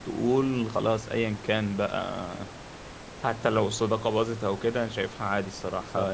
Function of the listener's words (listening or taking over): listening